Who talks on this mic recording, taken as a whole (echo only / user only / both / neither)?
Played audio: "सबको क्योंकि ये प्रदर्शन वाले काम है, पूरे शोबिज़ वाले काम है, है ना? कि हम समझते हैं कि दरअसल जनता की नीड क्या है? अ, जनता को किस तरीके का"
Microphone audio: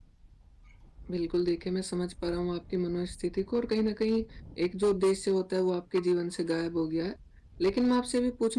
user only